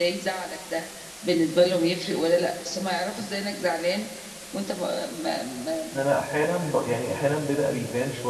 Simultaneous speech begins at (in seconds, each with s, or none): none